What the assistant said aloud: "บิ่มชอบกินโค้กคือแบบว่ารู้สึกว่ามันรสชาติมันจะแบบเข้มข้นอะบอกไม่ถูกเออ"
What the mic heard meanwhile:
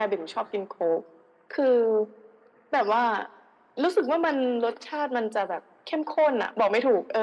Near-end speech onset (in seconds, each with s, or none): none